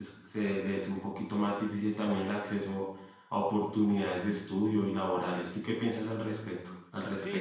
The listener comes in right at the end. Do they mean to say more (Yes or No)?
Yes